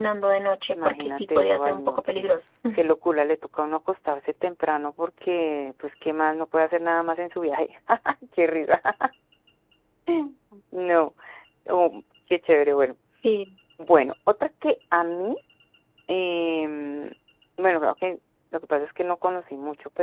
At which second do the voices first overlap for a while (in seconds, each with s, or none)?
0.7 s